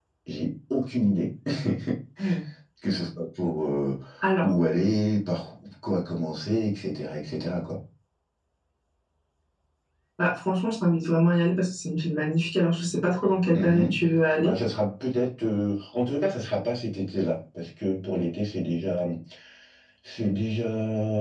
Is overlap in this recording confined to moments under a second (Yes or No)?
Yes